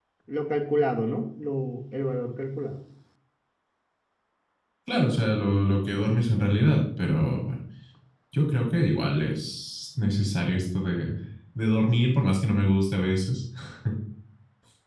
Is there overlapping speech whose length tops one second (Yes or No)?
No